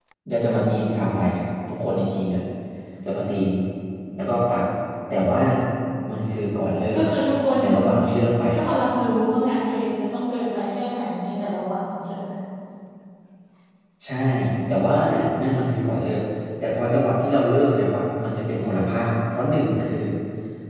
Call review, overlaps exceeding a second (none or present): none